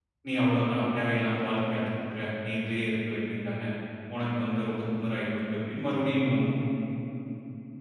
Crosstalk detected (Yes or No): No